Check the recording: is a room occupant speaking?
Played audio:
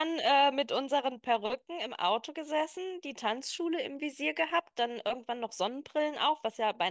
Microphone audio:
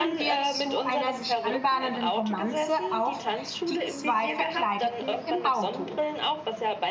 Yes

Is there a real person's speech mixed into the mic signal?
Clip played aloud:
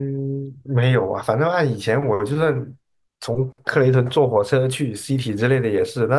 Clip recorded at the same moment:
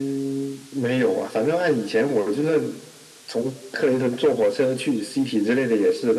No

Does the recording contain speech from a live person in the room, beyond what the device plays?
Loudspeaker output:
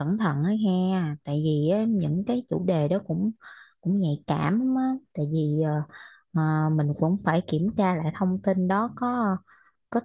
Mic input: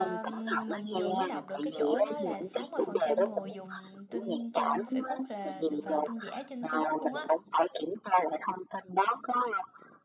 Yes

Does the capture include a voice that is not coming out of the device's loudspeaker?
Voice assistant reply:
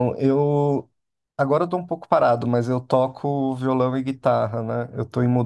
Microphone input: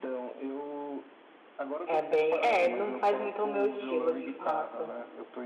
Yes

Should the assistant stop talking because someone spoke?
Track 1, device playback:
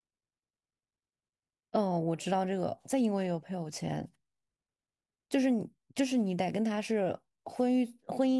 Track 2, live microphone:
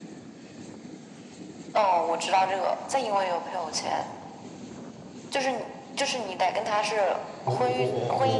Yes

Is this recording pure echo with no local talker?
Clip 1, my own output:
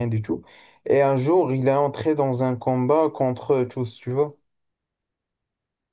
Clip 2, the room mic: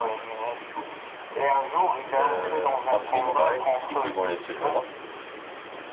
No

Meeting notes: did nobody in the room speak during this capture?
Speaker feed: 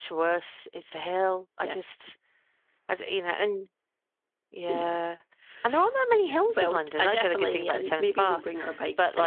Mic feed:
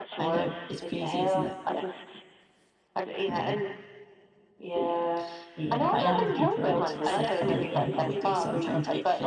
No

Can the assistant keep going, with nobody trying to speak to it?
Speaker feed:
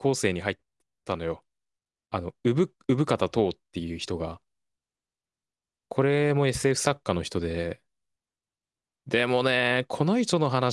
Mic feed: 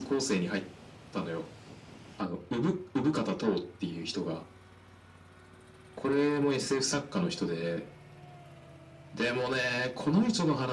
Yes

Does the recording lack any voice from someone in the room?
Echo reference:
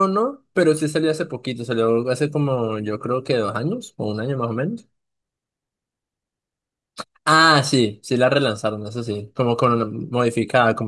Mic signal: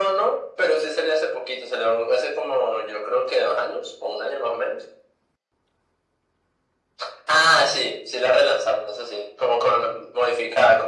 Yes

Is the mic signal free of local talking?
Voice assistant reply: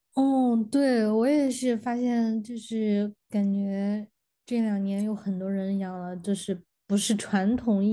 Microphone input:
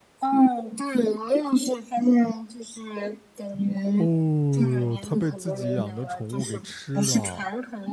No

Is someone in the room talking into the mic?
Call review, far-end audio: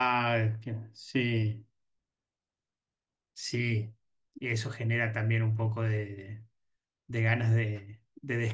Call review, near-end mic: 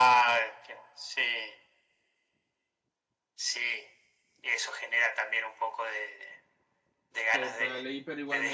Yes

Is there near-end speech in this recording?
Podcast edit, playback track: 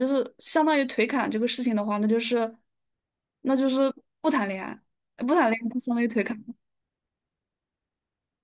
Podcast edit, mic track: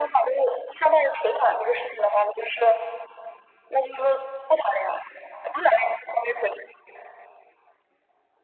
No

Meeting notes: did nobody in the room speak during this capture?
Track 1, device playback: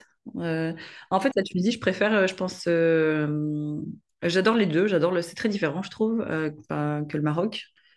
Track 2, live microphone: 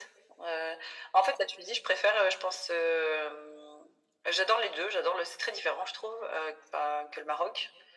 Yes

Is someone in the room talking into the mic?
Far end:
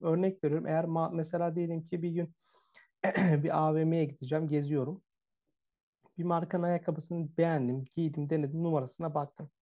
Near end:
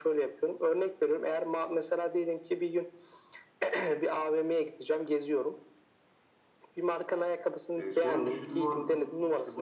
Yes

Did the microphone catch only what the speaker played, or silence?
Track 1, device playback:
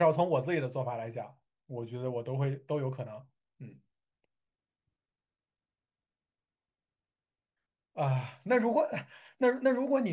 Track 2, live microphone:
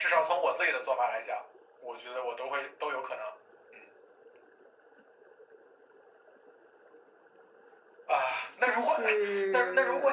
No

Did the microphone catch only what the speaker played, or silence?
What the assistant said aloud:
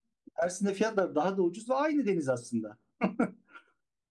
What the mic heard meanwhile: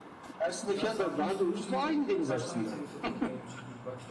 No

